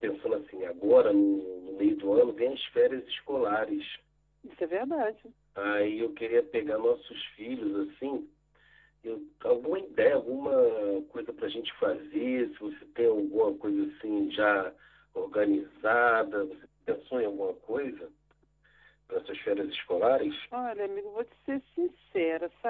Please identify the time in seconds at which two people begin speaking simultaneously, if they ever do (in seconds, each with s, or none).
none